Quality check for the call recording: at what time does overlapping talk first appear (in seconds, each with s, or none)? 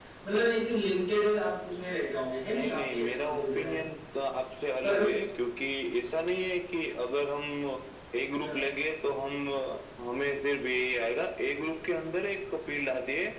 2.5 s